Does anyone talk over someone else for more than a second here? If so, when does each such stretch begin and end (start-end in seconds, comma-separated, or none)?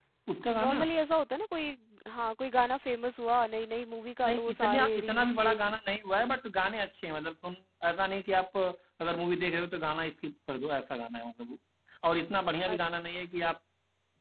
4.2-5.6